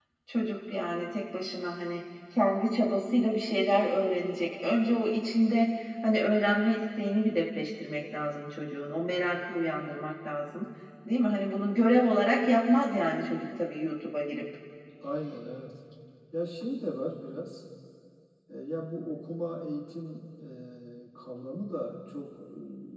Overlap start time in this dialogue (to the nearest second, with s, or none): none